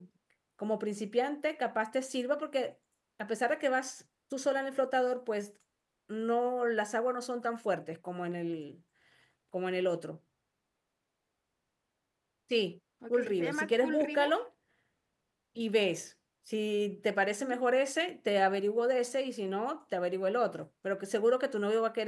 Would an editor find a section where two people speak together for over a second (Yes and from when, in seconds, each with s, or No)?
Yes, from 13.1 s